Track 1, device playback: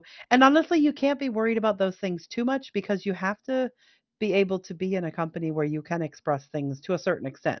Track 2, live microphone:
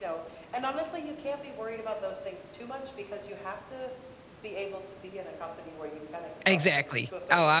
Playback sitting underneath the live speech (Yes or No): Yes